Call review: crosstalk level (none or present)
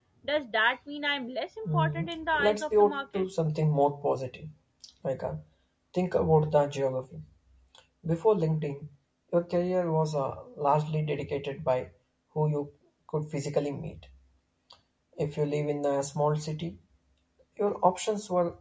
present